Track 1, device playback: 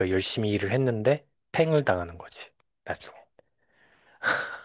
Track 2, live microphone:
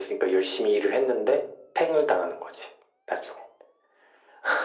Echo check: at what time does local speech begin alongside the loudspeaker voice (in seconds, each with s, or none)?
none